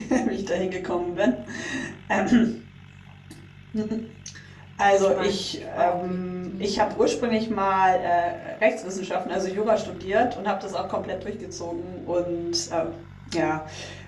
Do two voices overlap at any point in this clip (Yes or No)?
Yes